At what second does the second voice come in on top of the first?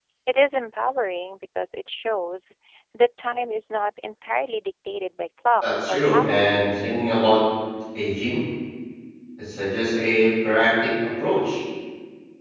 5.6 s

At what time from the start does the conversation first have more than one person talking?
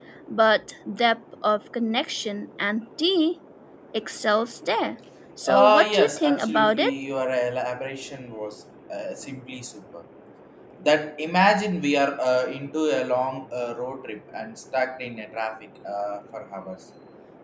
5.5 s

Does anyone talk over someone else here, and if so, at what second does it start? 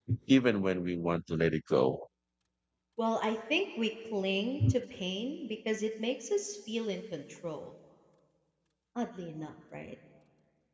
none

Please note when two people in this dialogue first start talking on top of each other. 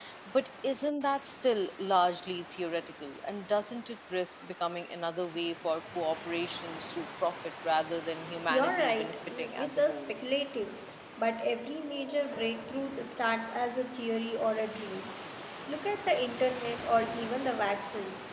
8.5 s

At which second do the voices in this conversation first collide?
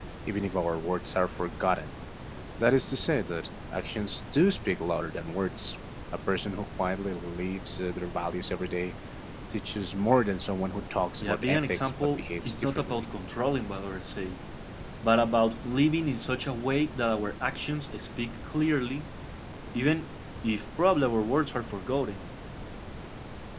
11.2 s

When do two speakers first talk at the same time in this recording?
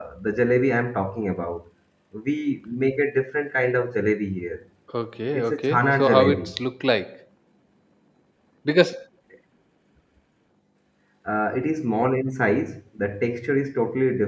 5.3 s

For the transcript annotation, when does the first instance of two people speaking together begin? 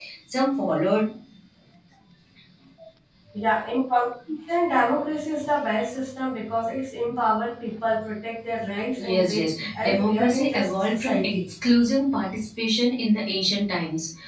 9.0 s

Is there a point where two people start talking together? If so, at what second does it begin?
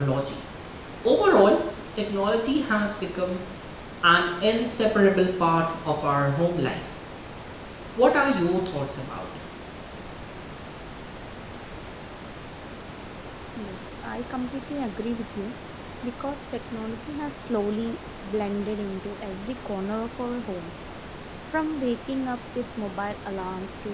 none

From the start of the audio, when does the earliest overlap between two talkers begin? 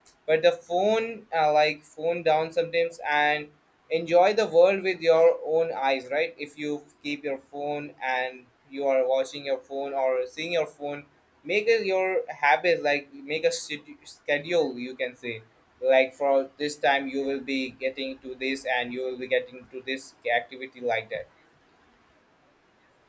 none

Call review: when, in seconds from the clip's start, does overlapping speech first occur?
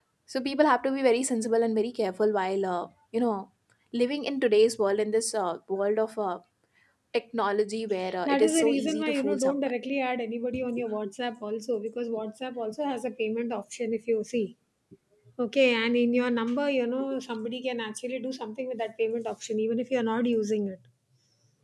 8.1 s

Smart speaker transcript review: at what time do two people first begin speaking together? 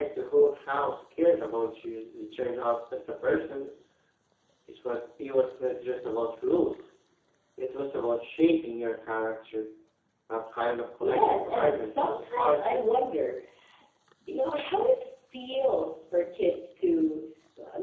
11.0 s

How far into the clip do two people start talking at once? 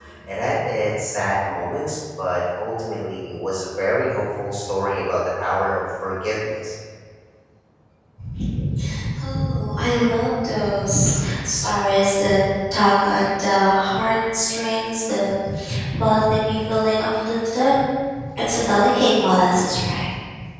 none

